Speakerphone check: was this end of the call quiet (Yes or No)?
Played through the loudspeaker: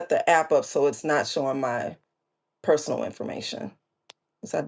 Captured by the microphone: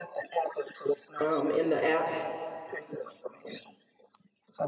No